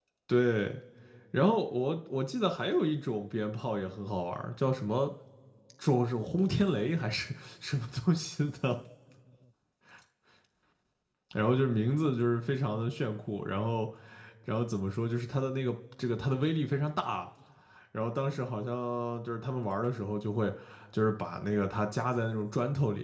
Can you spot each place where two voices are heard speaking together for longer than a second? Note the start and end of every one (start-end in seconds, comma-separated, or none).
none